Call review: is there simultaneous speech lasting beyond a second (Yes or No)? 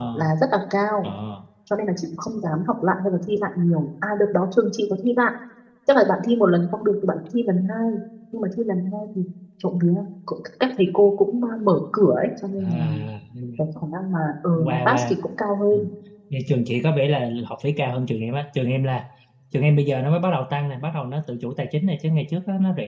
No